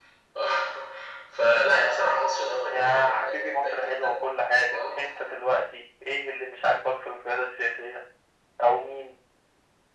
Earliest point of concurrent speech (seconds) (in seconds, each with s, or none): 2.7 s